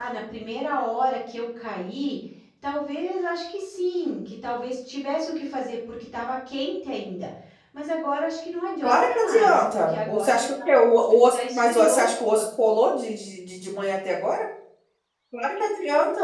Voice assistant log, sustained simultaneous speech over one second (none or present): present